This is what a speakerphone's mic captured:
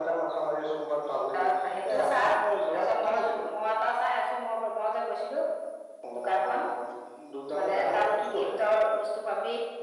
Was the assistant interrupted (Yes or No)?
No